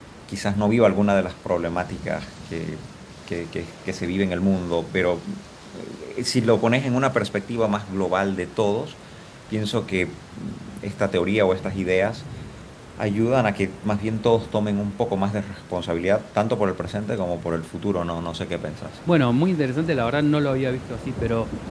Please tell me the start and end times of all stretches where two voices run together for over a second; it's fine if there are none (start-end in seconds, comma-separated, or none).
none